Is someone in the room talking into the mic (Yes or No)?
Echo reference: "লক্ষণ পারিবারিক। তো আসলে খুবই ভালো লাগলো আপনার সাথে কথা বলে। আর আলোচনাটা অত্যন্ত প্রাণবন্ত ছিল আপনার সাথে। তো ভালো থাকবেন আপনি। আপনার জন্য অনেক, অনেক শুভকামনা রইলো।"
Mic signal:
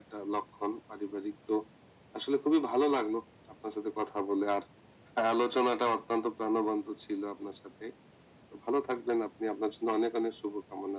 No